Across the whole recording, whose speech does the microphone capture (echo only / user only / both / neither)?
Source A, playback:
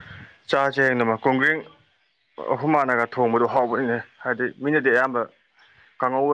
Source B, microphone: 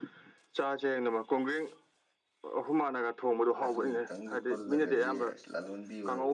both